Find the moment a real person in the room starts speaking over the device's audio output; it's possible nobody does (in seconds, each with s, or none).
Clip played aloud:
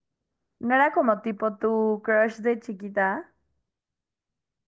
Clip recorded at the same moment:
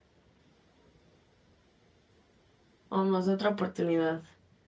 2.9 s